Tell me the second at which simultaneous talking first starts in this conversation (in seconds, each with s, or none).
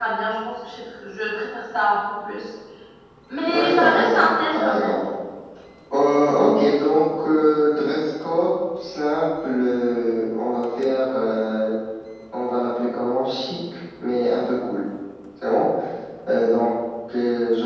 3.5 s